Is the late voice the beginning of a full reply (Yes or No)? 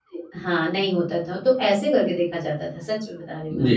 Yes